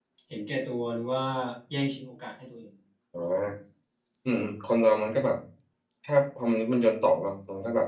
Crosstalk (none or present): none